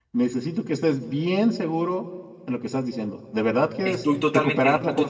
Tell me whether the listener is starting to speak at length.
Yes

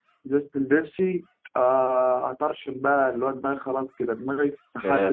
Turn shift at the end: Yes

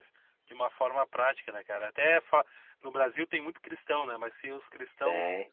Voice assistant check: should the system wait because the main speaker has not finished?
Yes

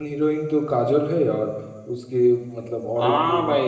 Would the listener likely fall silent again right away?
No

